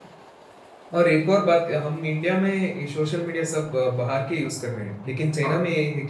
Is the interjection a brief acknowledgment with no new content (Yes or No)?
Yes